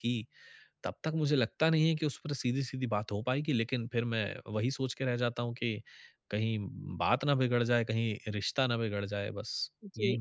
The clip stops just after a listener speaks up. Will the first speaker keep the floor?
No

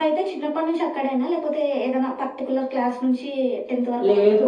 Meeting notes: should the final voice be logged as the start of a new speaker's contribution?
Yes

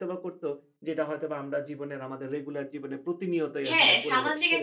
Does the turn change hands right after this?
Yes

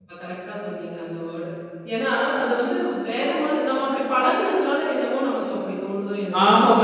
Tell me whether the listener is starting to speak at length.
Yes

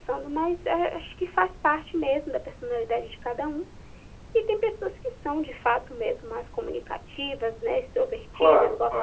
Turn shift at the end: No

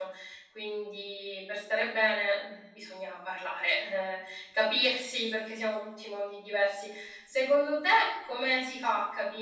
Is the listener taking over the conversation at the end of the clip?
No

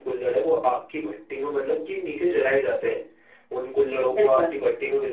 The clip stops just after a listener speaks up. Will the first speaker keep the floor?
Yes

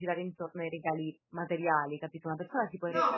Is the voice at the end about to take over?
No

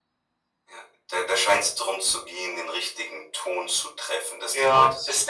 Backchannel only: No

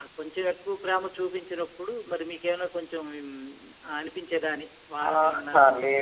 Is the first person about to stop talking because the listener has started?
Yes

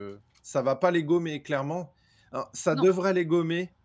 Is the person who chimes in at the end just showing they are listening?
Yes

